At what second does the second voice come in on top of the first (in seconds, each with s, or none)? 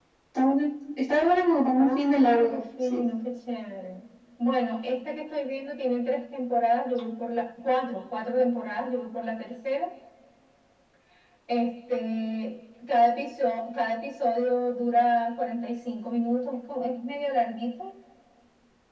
1.8 s